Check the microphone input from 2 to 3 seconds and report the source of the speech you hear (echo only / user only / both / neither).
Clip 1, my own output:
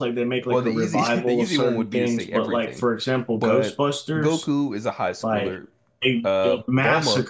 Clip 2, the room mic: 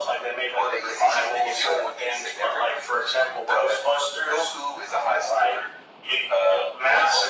echo only